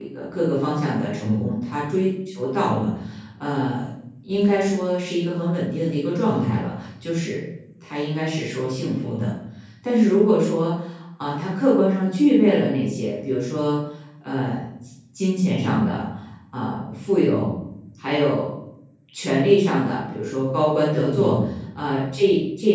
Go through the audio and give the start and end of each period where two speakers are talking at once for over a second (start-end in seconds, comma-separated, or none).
none